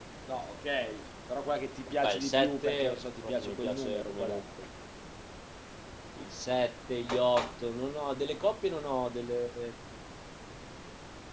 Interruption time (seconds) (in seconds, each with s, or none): 1.9 s